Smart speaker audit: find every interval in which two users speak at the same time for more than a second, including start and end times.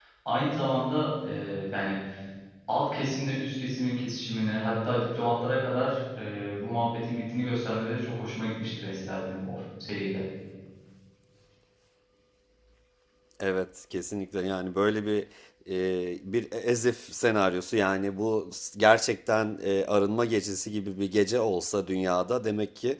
none

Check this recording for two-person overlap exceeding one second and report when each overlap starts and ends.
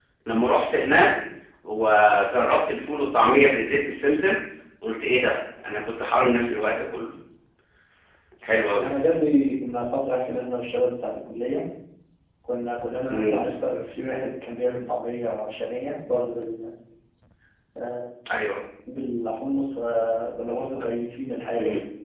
none

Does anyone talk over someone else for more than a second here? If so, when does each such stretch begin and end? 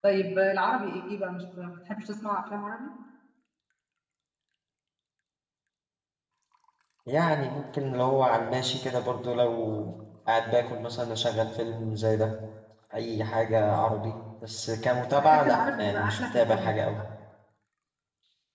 15.2-16.7

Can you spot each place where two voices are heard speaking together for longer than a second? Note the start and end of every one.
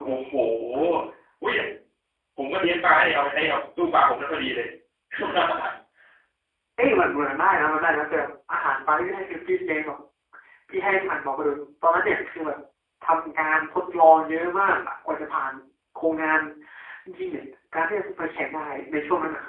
none

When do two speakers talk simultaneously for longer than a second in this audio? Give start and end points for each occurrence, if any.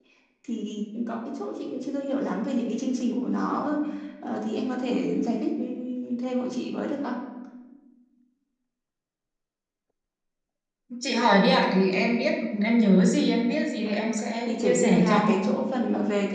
13.8-15.3

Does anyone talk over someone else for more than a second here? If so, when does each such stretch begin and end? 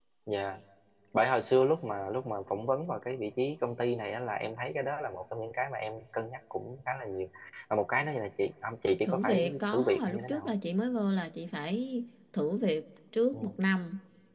9.0-10.5

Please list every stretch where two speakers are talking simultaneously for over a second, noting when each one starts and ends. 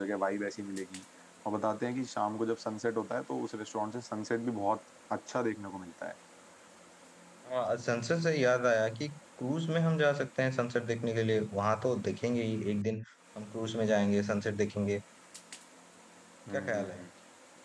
none

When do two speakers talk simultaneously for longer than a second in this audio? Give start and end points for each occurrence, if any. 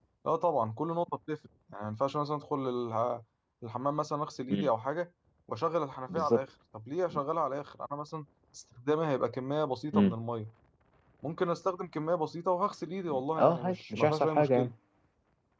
13.4-14.7

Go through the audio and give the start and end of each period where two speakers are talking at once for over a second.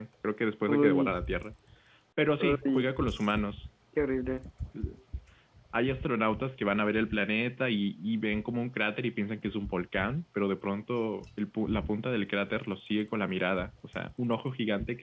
none

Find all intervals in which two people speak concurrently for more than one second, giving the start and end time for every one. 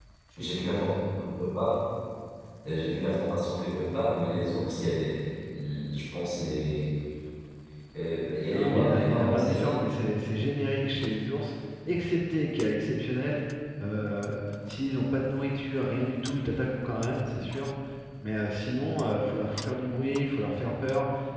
8.5-9.8

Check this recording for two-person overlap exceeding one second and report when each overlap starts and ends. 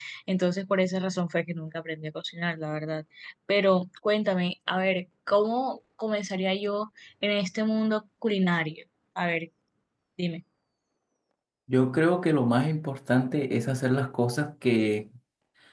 none

